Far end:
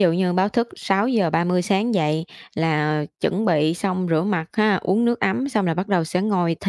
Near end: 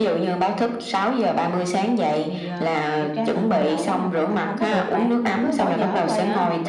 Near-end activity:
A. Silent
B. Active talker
B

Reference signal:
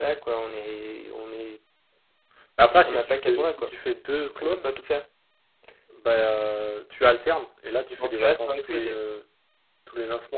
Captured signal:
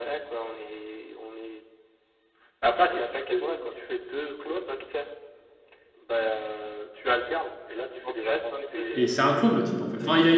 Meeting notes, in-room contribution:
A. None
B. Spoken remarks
B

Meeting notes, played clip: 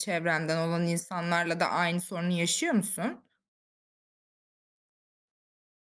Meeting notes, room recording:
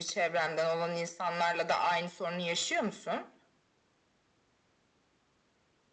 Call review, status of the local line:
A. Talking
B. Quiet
B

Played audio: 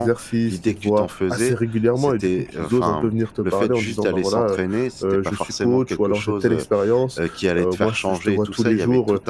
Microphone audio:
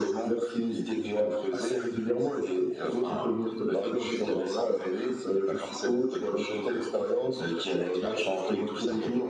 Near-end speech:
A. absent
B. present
A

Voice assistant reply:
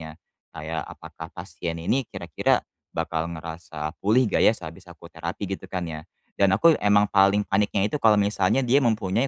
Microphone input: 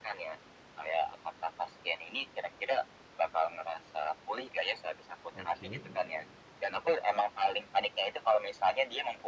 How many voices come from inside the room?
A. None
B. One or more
B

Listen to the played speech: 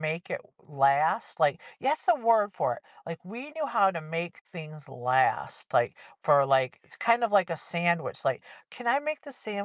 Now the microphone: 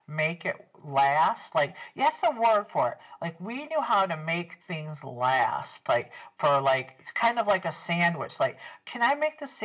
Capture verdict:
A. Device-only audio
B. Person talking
A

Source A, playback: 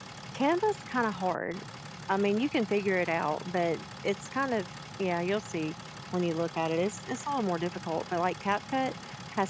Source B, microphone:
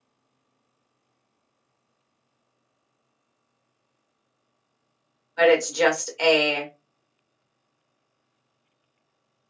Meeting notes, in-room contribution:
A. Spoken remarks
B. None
A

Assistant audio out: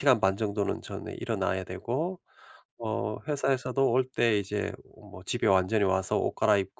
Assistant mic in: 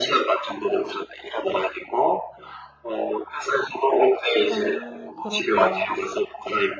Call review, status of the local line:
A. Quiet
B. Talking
B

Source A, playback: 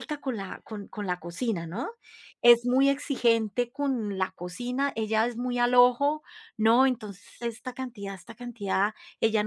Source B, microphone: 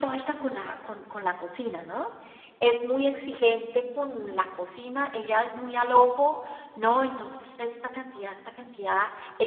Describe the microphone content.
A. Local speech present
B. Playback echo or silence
B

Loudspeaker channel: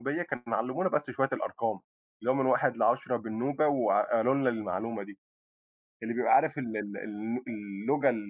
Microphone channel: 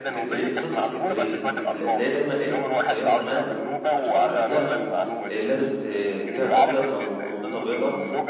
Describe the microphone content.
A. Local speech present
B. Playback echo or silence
A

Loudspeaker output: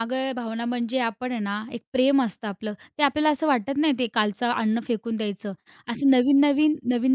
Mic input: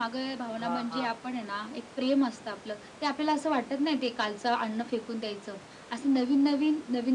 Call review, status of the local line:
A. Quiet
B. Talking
B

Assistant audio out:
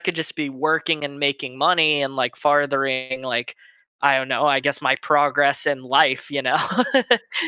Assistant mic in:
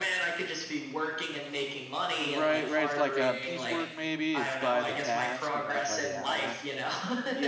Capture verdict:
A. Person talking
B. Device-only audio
A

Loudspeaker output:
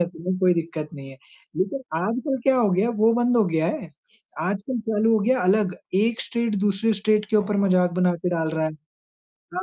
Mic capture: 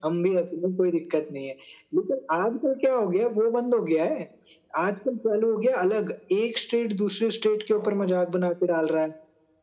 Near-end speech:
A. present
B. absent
B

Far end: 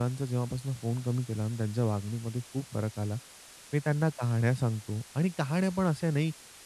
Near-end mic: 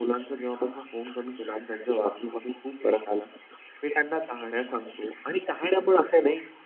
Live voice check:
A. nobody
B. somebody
A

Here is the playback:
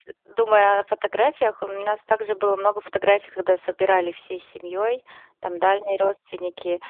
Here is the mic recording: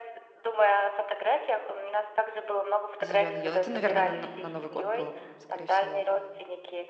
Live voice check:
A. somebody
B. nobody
A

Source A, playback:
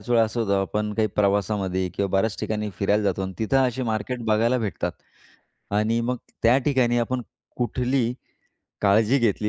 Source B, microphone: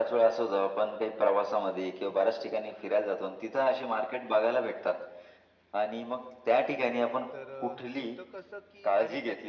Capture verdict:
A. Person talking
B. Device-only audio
A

